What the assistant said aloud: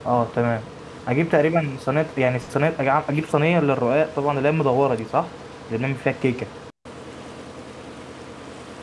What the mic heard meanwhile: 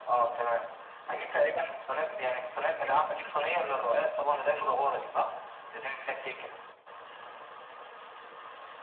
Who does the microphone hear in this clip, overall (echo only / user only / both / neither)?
echo only